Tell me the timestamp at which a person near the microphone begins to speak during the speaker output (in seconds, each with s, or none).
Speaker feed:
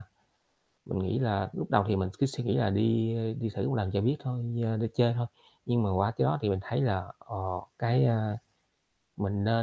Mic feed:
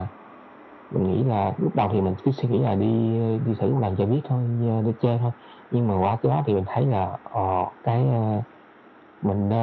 none